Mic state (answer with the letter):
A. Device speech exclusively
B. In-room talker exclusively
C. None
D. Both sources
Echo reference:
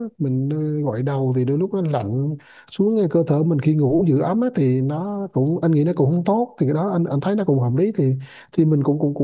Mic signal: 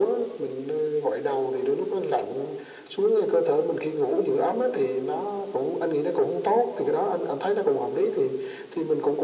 A